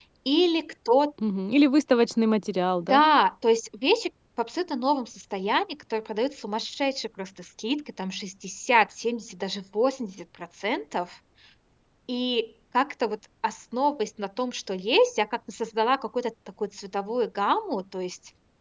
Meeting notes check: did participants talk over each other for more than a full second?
No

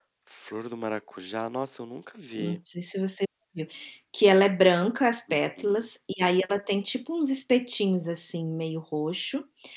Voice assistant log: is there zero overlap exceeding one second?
Yes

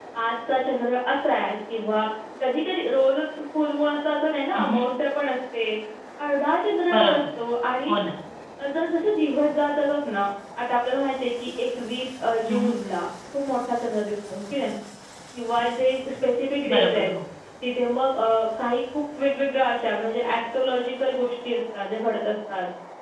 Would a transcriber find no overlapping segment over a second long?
Yes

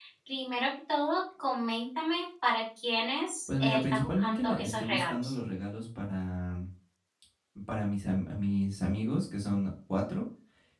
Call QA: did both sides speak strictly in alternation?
No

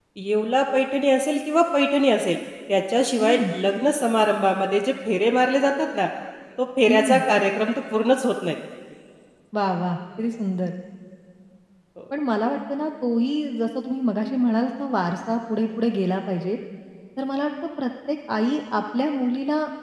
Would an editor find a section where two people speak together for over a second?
No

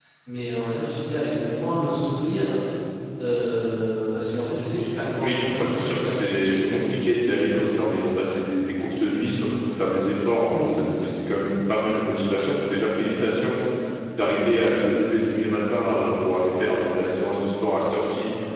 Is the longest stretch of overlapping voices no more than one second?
No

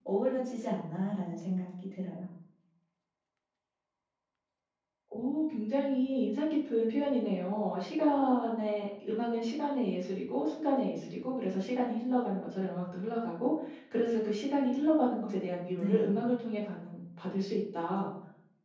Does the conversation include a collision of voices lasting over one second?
No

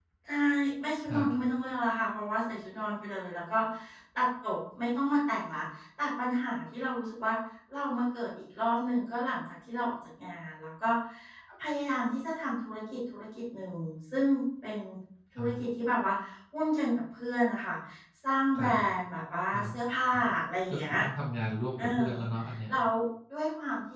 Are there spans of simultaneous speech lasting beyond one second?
No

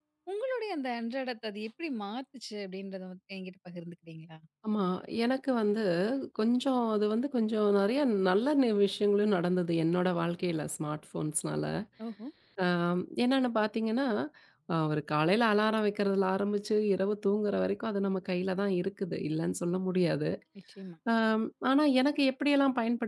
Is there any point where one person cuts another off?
No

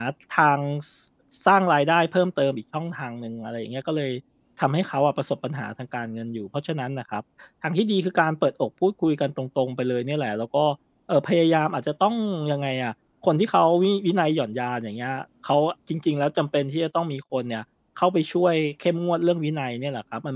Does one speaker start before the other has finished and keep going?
No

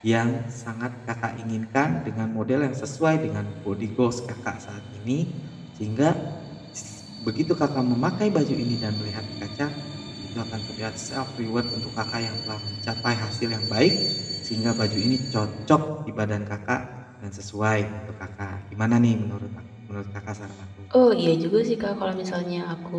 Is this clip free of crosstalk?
Yes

